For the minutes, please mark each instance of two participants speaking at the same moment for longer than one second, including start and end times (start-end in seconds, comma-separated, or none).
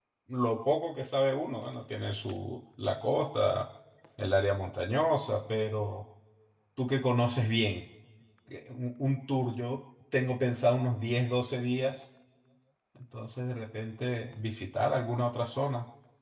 none